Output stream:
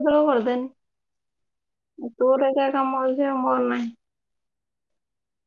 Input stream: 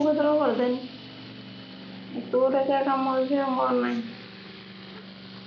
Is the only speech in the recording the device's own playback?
Yes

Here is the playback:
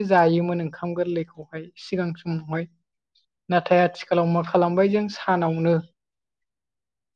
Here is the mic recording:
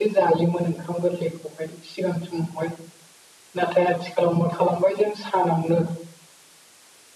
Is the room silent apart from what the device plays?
Yes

